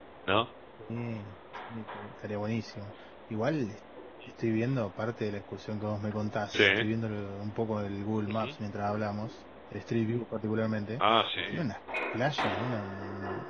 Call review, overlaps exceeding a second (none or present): none